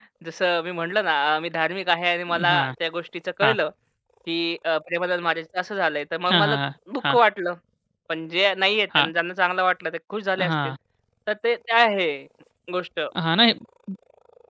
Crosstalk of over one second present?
No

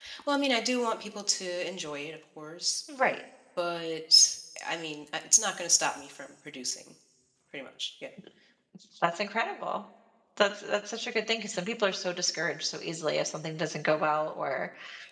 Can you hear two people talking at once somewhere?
No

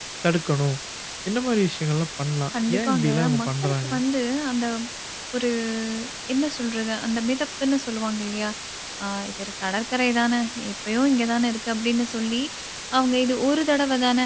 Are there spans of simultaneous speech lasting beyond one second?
Yes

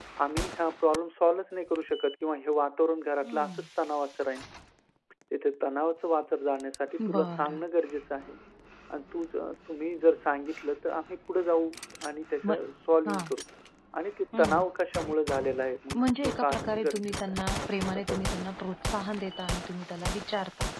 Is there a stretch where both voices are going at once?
Yes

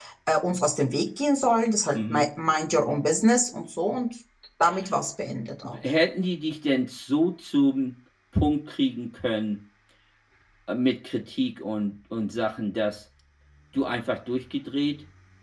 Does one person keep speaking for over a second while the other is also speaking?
No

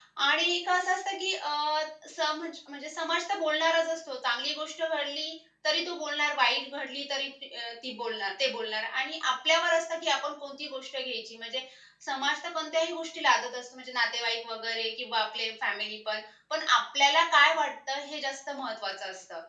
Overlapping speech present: No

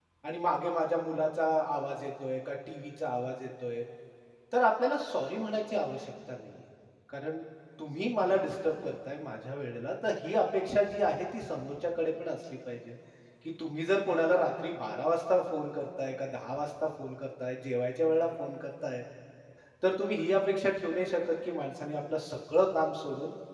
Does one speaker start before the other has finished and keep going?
No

